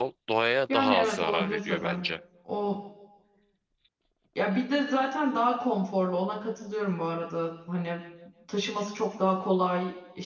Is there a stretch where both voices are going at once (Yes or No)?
Yes